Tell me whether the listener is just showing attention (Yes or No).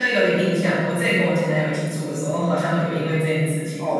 No